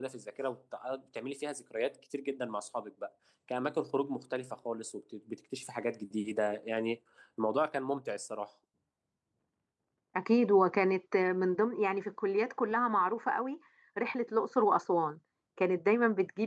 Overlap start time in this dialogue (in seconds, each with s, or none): none